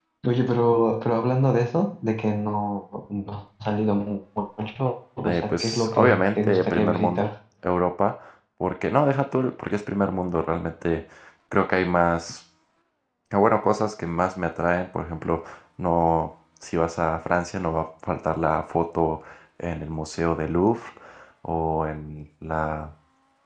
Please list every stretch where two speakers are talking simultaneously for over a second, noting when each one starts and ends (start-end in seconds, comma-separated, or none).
5.2-7.3